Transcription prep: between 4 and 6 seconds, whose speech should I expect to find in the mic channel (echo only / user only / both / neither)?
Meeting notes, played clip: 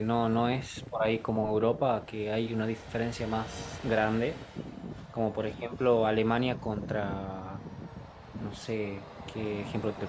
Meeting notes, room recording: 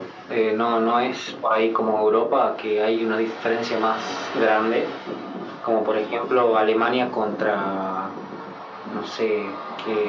echo only